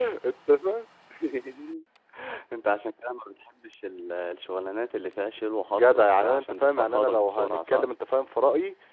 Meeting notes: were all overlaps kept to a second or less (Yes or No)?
No